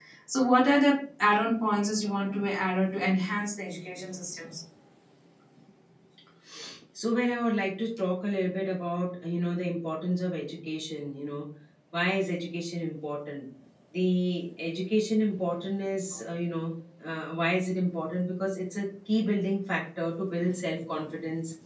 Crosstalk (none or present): none